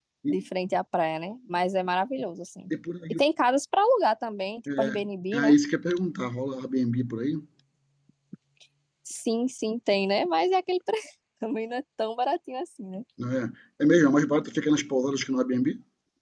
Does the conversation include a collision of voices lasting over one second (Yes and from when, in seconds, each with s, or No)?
No